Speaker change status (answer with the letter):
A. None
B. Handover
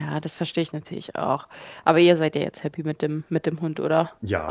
B